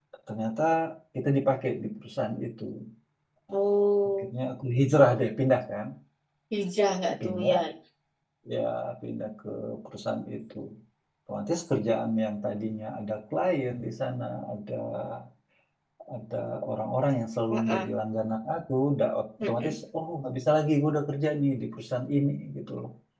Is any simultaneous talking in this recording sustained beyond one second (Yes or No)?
No